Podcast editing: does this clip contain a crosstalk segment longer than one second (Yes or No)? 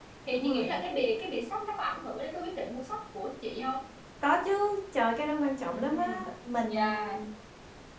No